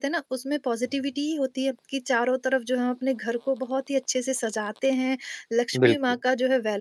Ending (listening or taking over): listening